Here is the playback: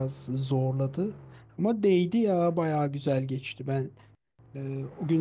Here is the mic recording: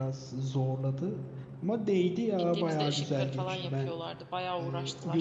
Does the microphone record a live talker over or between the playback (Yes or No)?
Yes